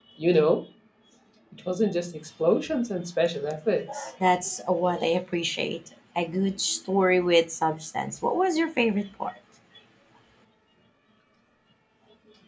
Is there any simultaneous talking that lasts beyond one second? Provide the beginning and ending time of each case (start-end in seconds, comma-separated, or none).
none